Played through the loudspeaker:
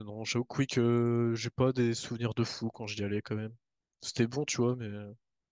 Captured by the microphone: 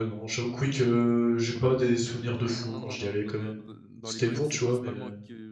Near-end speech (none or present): present